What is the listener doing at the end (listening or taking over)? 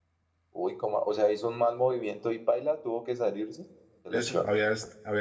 taking over